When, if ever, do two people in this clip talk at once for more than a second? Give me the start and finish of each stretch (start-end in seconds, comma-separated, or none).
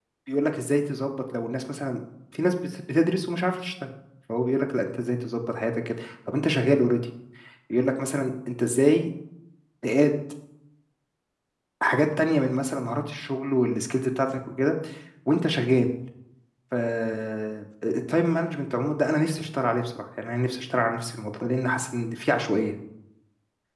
none